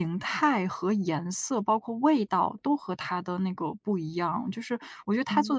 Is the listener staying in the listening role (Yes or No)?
Yes